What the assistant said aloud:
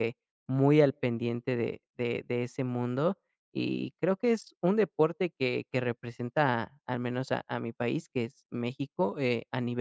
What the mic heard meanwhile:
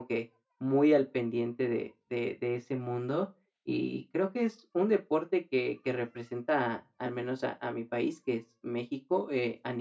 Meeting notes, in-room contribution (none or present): none